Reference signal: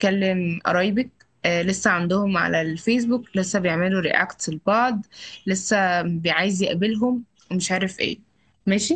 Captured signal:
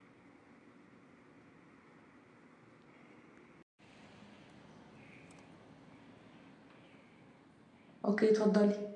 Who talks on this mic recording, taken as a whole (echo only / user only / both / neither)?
user only